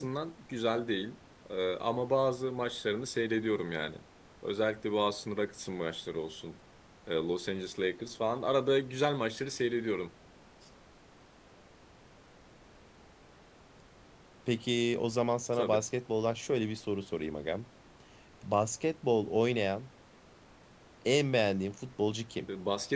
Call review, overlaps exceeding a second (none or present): none